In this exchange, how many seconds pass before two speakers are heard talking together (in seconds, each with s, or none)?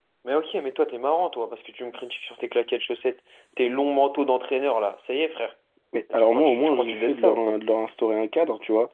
6.1 s